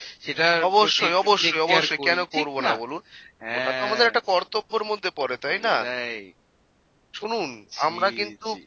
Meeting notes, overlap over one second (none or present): present